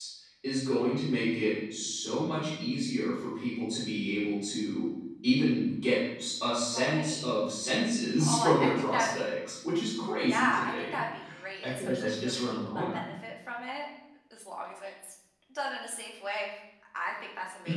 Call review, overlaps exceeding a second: present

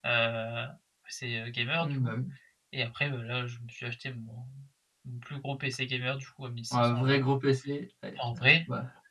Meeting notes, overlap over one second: none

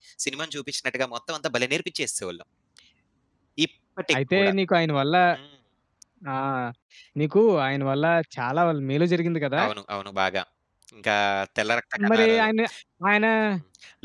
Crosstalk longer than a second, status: none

